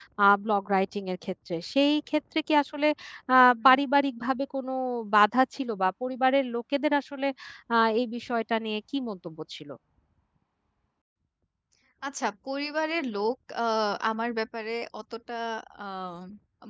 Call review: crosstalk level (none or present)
none